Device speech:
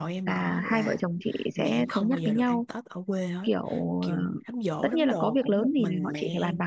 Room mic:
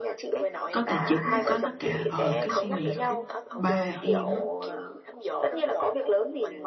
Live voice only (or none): có tài chính mới có tất cả ờ cái suy nghĩ của ba em á